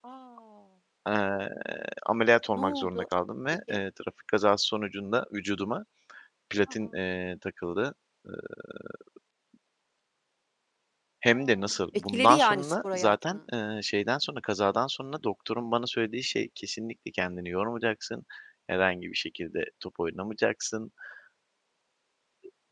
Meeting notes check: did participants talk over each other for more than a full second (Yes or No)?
Yes